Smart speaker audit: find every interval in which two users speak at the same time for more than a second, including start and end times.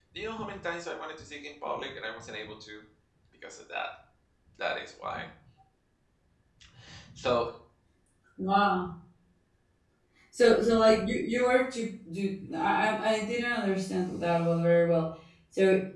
none

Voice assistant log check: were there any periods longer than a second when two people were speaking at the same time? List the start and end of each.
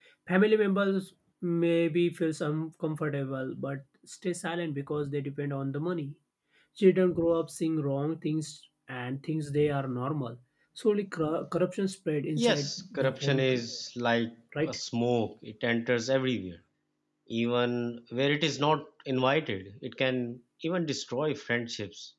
12.4-13.6

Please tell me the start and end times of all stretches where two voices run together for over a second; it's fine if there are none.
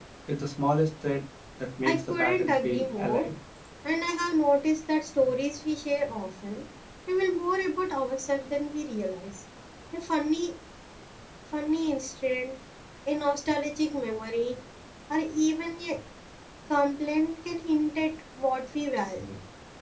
1.8-3.2

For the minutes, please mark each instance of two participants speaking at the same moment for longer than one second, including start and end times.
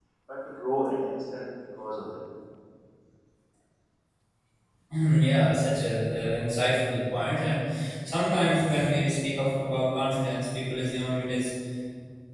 none

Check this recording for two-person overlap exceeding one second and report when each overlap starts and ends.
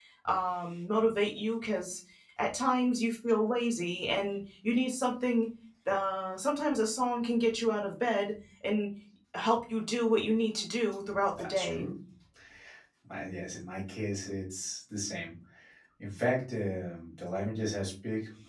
none

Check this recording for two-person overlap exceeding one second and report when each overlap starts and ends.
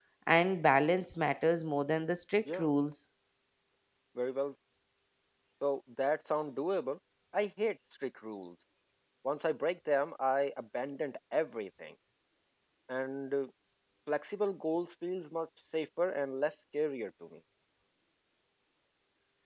none

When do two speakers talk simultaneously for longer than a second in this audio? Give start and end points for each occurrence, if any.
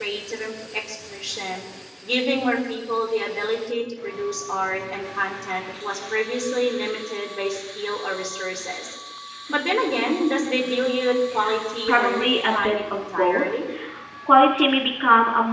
11.9-13.4

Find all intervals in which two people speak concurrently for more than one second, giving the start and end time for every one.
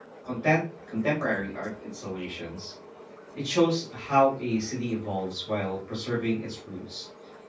none

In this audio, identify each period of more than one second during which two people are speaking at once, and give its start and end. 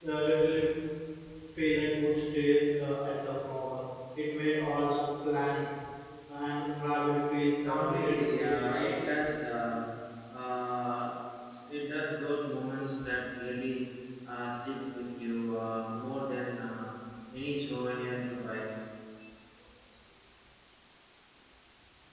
7.6-9.1

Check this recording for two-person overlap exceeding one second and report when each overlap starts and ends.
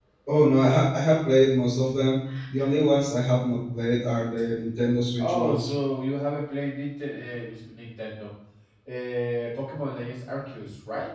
none

